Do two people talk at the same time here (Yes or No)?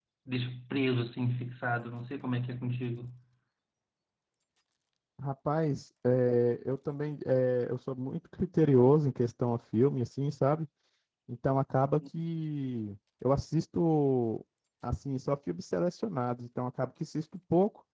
No